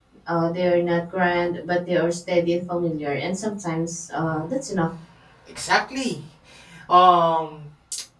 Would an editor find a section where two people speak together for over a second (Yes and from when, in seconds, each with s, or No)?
No